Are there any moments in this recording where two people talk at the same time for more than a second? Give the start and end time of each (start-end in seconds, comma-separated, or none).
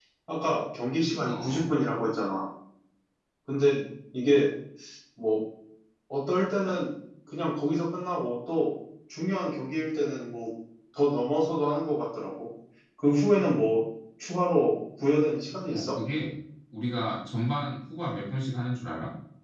none